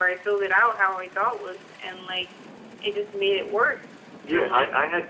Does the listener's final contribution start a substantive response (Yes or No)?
Yes